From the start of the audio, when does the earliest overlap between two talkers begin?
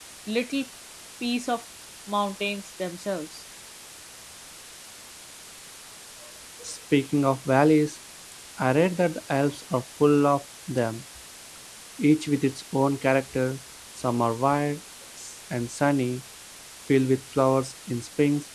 none

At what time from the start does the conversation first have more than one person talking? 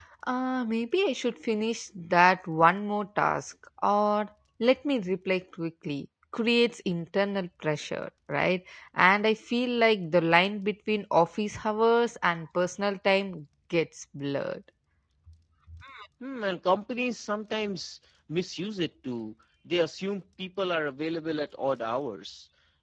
none

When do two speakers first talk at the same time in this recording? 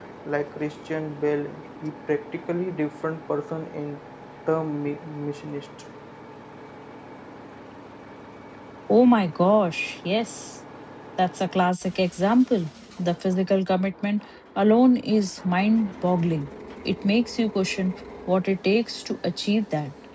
none

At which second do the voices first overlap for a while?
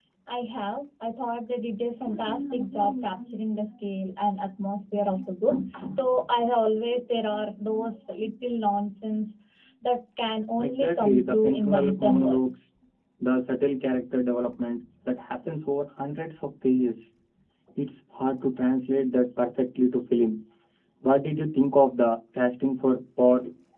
10.6 s

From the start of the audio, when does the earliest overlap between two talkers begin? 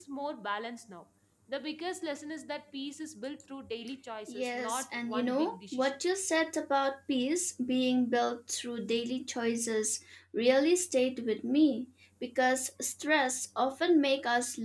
4.3 s

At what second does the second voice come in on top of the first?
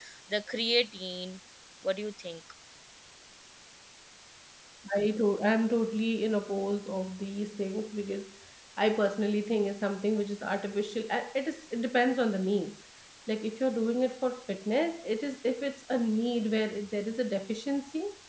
none

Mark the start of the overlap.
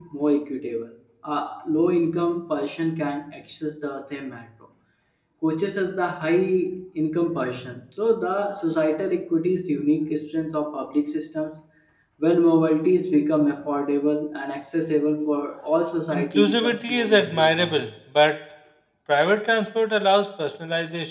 16.1 s

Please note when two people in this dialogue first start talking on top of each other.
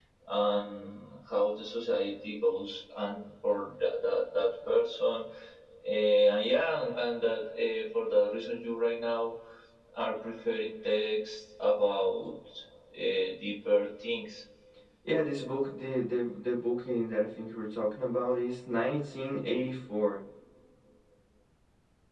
none

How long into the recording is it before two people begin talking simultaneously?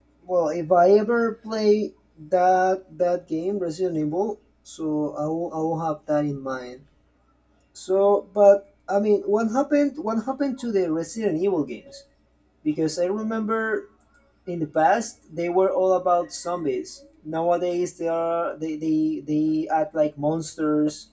none

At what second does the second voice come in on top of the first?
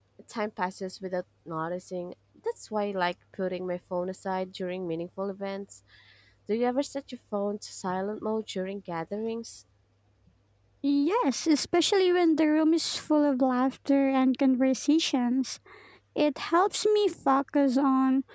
none

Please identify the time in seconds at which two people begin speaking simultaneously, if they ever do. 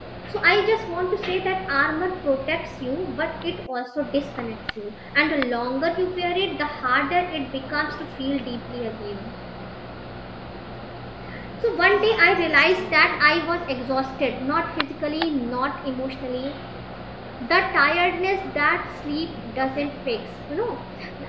11.9 s

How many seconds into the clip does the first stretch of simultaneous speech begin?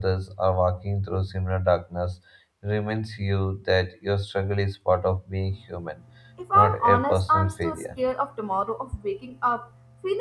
6.6 s

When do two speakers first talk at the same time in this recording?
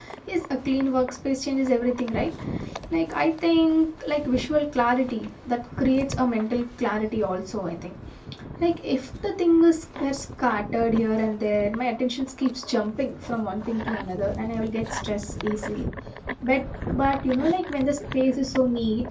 none

